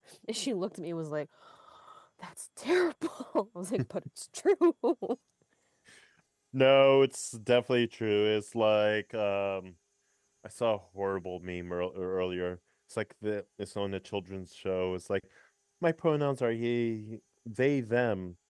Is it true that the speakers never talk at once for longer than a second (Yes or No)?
Yes